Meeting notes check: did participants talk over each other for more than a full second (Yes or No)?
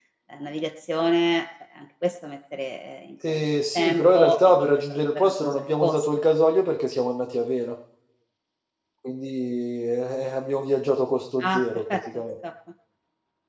Yes